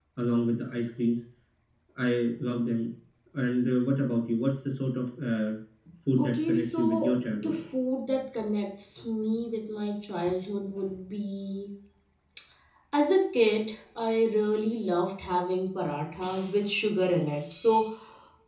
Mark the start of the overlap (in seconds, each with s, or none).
6.2 s